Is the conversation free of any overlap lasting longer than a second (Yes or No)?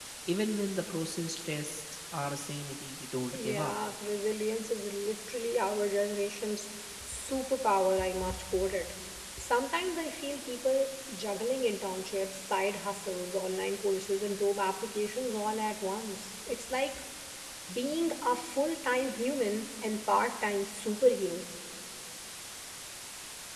Yes